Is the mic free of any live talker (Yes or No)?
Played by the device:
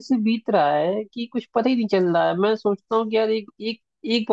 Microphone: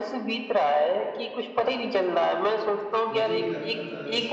No